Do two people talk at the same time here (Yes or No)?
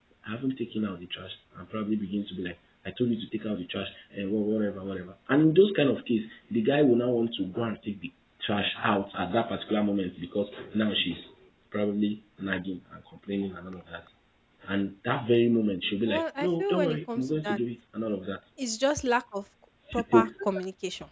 Yes